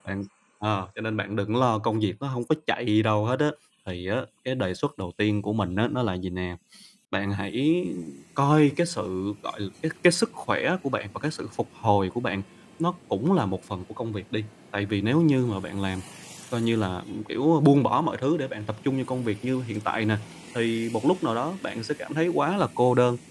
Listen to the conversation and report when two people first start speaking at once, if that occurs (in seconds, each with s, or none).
none